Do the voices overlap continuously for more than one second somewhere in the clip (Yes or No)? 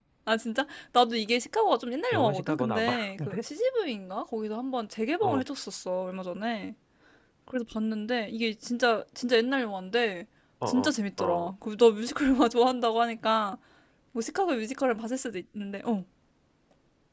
Yes